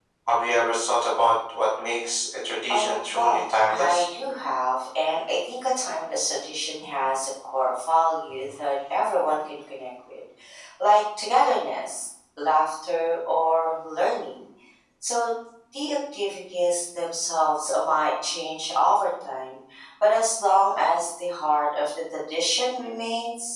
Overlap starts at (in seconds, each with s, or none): 2.7 s